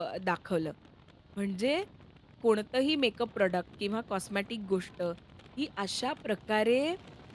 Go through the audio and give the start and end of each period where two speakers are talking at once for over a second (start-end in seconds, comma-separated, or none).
none